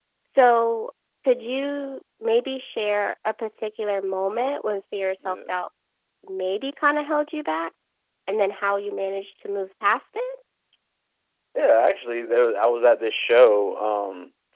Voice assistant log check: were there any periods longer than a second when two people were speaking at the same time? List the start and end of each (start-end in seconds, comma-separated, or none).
none